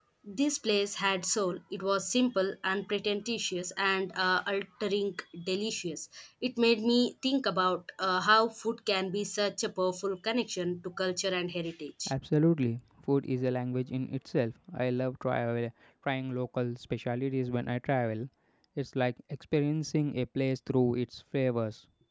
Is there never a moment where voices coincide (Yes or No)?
Yes